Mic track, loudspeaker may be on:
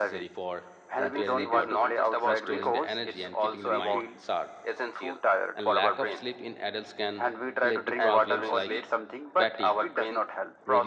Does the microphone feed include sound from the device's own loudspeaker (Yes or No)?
Yes